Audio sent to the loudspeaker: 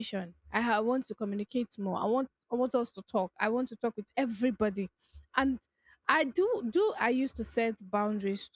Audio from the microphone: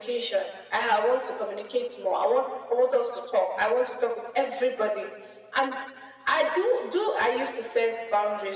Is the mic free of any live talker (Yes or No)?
Yes